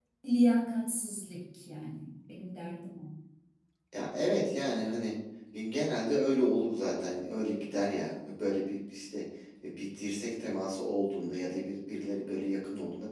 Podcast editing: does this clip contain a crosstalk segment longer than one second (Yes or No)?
No